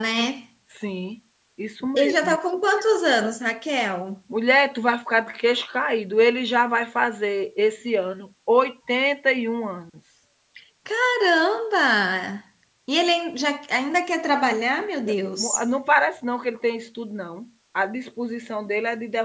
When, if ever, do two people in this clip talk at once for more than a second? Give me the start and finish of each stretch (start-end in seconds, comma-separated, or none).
none